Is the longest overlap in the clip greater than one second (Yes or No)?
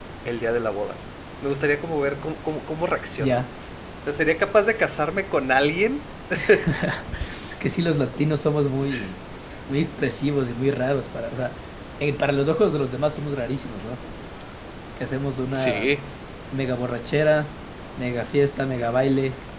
No